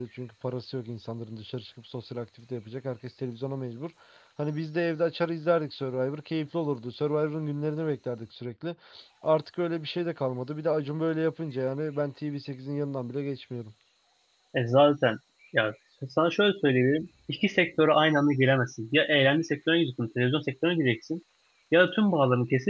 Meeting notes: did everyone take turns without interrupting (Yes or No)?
Yes